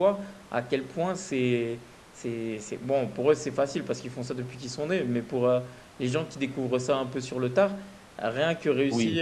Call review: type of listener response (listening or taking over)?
listening